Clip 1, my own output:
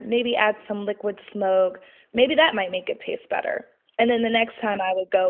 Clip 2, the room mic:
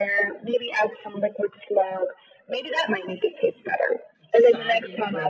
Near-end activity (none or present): present